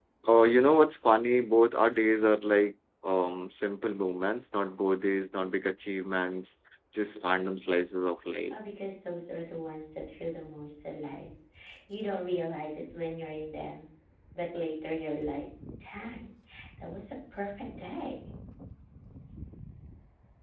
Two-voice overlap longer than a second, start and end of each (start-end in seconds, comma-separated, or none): none